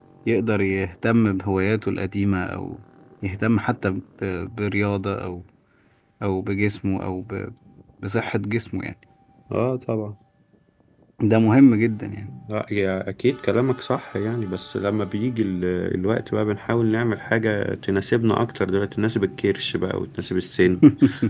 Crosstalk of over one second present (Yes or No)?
No